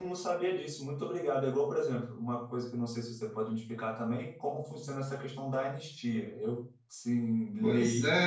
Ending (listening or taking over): taking over